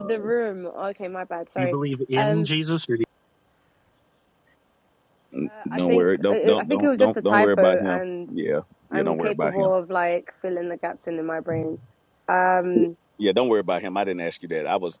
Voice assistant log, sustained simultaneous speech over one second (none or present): present